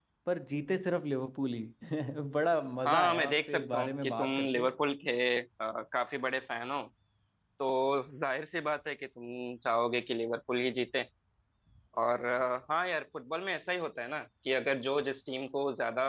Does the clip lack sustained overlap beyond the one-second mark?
No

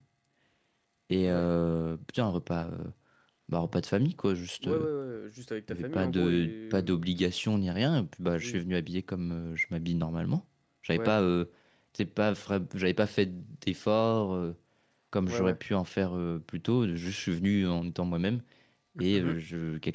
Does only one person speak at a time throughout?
No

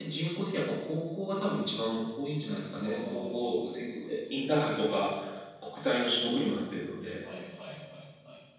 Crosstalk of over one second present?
Yes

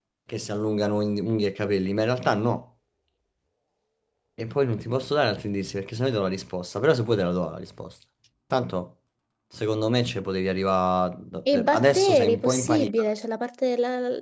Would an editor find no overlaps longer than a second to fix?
No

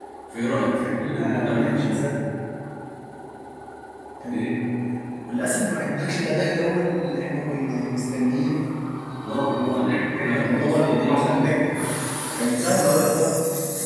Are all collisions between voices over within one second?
No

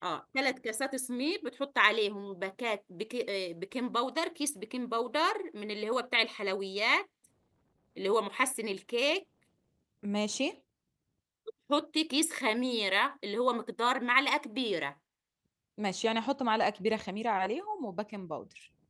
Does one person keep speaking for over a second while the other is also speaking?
No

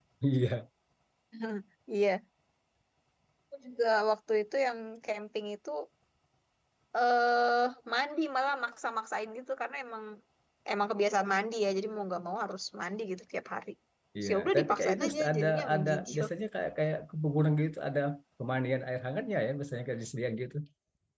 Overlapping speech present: Yes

